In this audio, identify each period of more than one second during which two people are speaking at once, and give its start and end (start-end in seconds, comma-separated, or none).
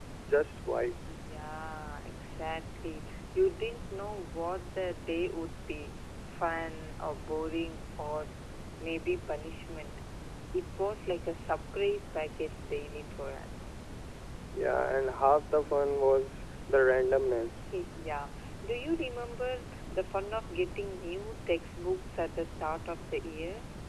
none